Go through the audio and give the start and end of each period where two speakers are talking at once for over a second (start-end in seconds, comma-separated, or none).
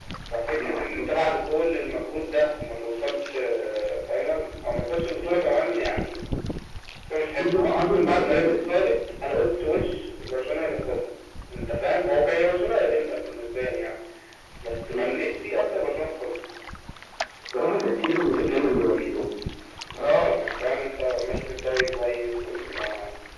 7.4-8.6